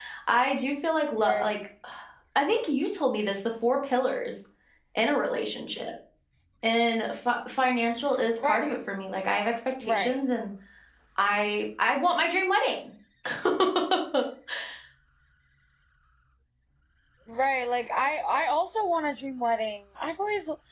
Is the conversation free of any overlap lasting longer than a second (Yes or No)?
Yes